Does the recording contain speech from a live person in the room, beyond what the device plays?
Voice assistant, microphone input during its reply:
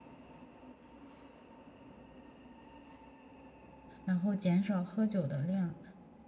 Yes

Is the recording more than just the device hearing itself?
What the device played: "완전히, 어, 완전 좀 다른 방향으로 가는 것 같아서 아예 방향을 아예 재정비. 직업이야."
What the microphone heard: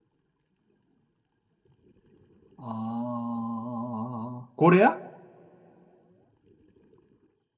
Yes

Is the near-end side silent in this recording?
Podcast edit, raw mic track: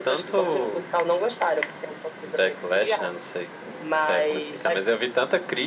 Yes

